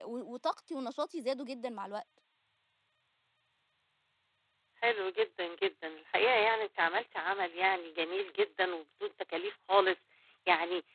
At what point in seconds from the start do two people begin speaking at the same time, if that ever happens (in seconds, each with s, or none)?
none